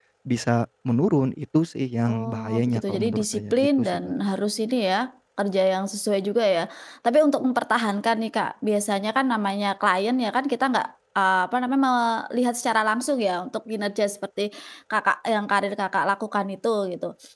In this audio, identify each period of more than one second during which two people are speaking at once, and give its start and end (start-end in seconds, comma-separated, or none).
2.1-3.9